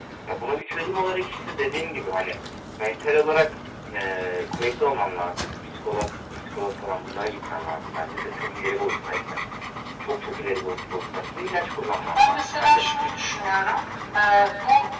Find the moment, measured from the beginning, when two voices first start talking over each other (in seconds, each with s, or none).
12.2 s